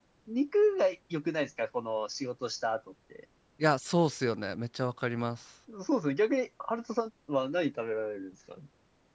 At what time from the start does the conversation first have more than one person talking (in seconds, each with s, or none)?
none